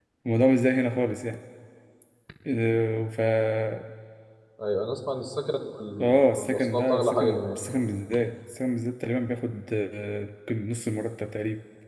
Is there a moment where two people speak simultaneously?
Yes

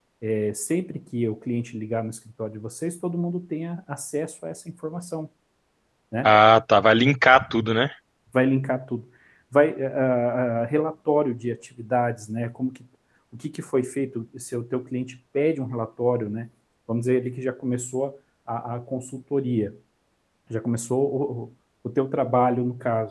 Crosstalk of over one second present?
No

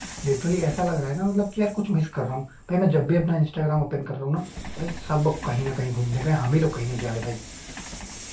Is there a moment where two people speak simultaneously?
No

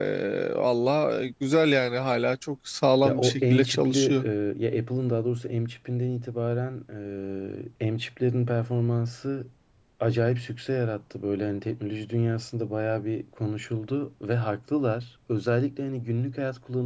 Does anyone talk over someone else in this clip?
Yes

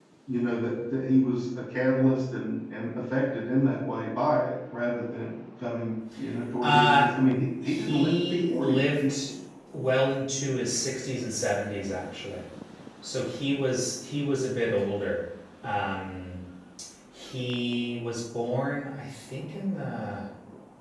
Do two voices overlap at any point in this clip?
Yes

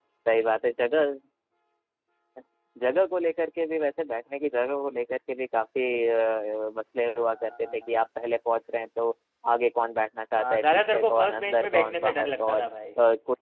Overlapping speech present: Yes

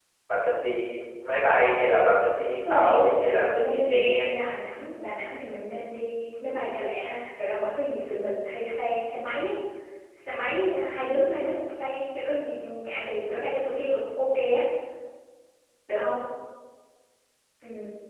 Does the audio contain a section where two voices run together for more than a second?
Yes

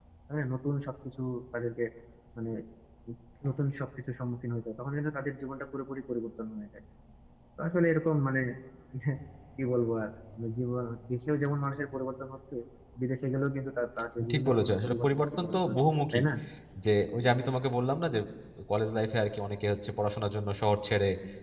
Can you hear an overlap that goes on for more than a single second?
Yes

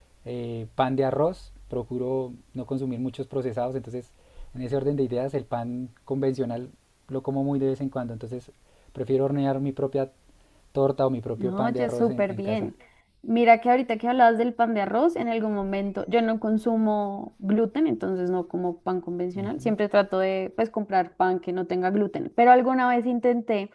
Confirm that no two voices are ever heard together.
No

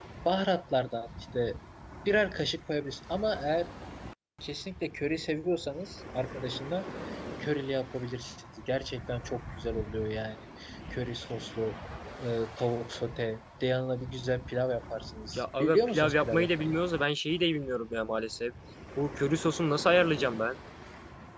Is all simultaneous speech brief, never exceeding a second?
No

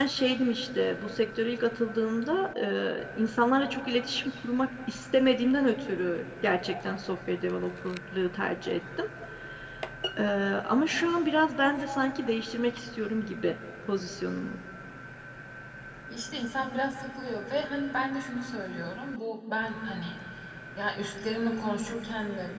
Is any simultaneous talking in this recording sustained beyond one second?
No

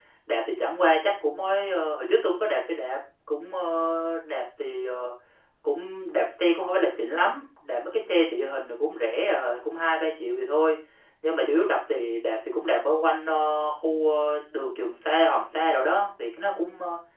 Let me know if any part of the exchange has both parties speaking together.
No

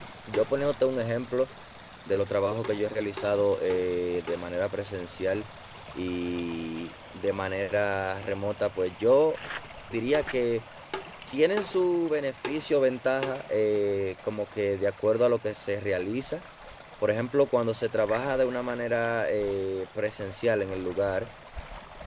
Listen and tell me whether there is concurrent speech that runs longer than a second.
No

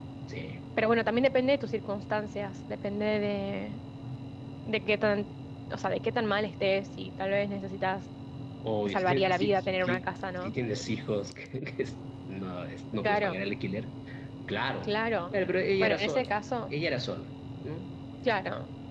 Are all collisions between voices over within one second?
No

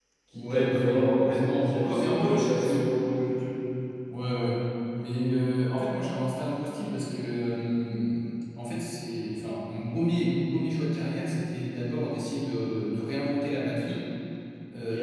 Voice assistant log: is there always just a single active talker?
No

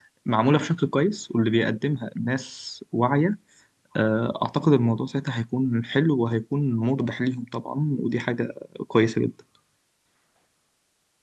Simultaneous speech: No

